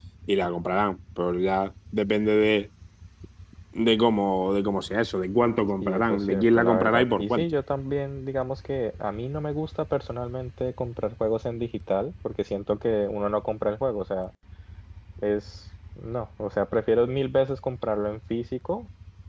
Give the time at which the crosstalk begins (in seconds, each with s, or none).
5.8 s